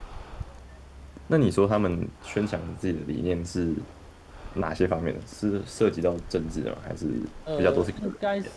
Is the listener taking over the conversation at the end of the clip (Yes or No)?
Yes